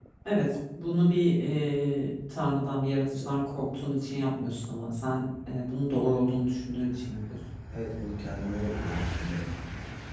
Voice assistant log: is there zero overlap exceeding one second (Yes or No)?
Yes